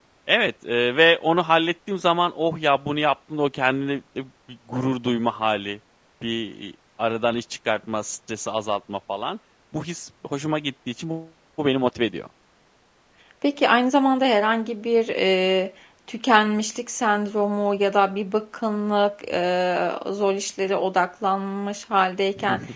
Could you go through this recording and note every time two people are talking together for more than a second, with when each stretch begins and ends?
none

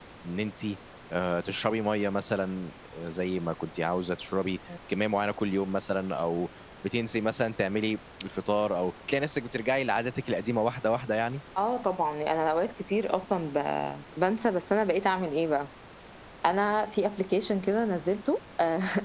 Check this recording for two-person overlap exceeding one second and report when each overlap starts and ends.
none

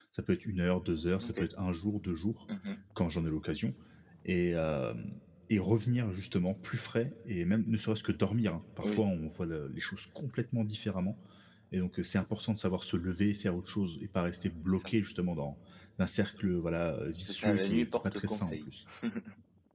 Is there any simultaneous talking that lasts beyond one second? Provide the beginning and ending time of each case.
17.2-18.7

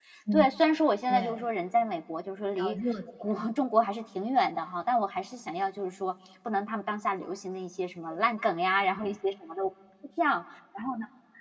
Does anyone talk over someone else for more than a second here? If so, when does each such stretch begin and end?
none

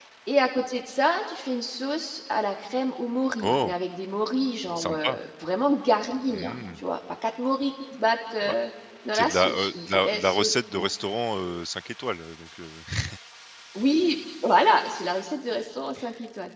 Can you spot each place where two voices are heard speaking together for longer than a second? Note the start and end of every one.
9.1-10.8

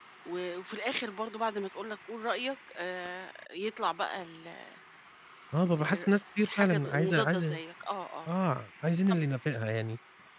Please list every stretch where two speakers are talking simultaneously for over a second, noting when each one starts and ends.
5.7-7.6

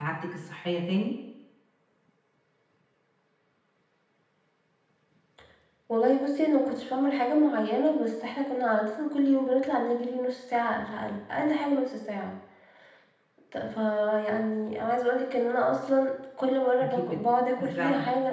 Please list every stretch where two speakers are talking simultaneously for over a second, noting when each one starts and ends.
none

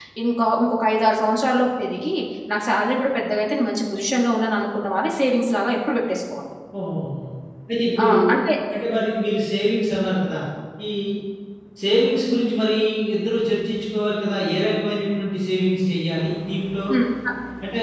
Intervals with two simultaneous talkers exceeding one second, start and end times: none

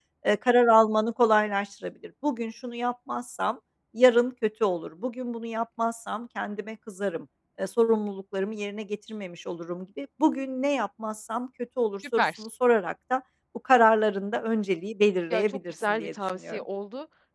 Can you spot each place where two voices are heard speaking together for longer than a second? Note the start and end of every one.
15.3-16.6

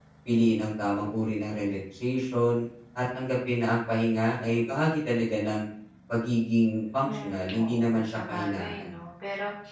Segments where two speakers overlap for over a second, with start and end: 7.1-9.0

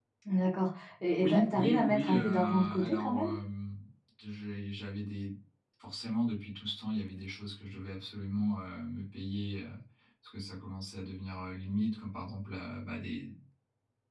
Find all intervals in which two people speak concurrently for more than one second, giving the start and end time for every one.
1.2-3.3

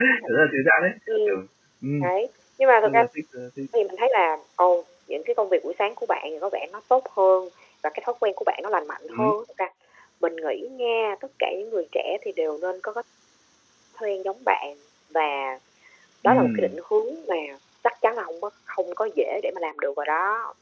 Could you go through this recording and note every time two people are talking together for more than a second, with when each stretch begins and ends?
none

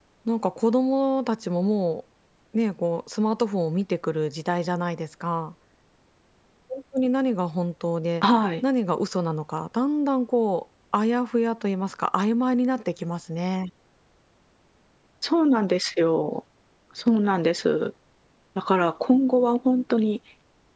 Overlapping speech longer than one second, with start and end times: none

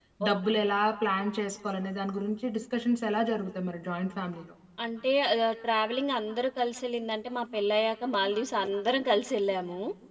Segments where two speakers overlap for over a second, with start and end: none

